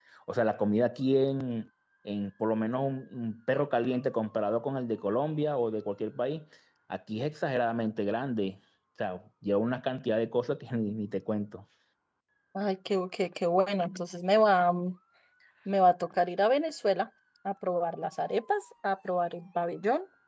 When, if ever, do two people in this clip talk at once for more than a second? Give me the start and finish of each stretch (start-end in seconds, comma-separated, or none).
none